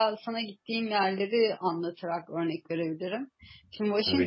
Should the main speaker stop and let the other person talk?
No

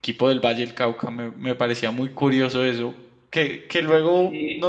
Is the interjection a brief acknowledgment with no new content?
Yes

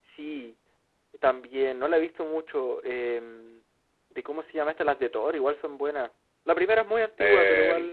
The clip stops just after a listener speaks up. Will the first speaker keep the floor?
No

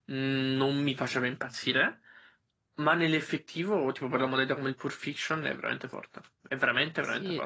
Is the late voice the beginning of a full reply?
Yes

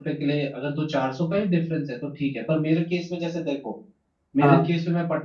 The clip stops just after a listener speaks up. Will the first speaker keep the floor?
Yes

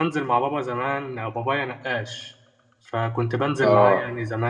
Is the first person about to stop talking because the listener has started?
No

